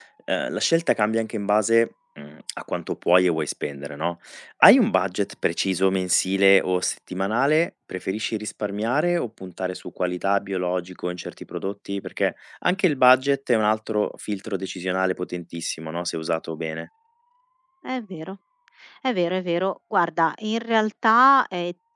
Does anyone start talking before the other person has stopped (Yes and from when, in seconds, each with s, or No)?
No